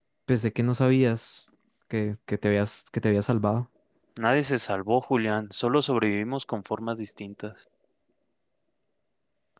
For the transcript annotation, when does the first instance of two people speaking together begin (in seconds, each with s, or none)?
none